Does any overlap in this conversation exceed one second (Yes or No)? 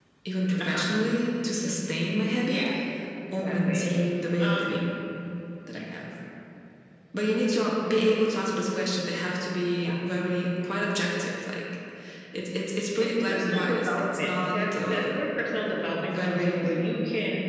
Yes